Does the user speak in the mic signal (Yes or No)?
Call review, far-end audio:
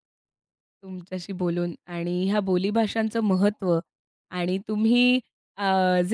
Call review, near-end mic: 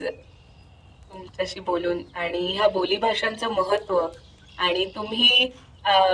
No